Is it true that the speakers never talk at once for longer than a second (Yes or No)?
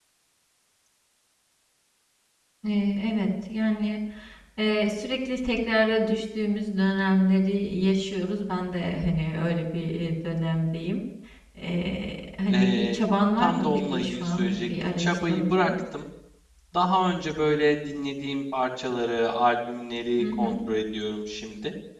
No